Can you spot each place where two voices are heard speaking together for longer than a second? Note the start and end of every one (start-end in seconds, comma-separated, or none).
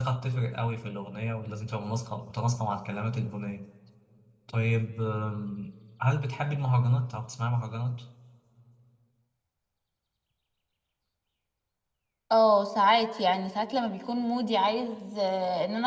none